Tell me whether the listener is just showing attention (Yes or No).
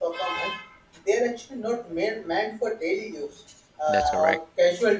Yes